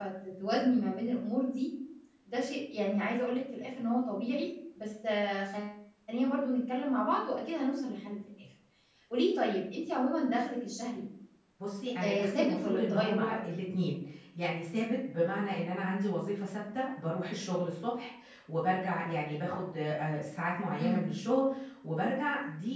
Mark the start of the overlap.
12.0 s

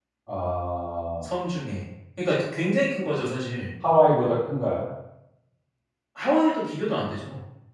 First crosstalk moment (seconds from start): none

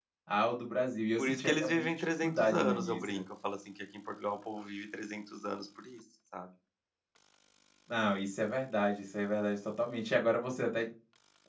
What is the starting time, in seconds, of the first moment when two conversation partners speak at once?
1.2 s

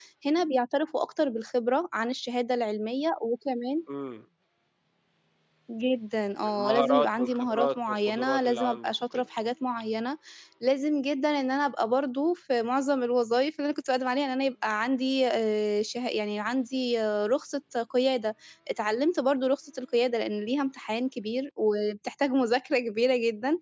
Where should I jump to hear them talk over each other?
6.4 s

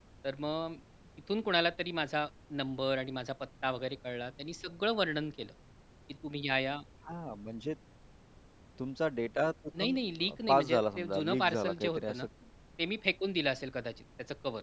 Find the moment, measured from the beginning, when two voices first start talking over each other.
9.7 s

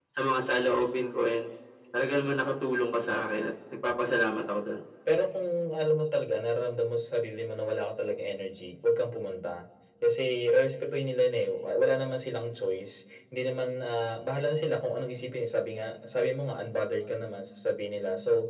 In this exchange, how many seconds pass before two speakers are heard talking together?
none

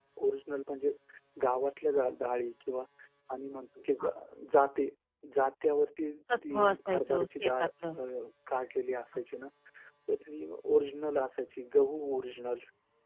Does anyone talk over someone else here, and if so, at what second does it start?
6.3 s

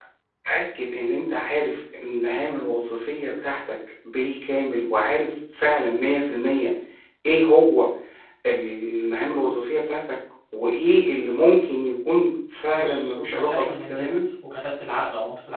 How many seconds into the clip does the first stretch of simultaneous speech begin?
12.8 s

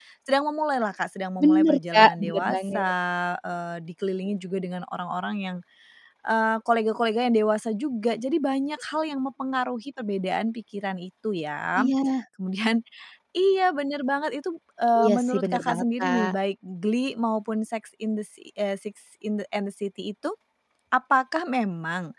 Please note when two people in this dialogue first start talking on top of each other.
1.4 s

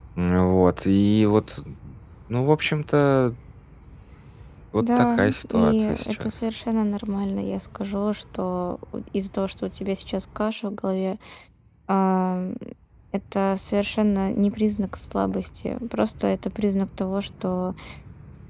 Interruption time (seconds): 4.8 s

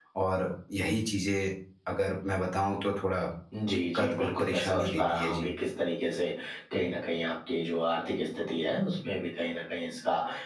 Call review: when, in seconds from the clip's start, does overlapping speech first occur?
3.6 s

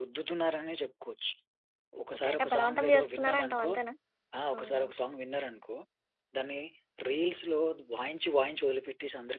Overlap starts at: 2.1 s

